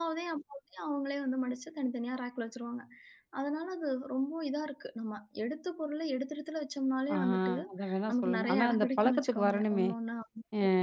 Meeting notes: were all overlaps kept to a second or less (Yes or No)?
No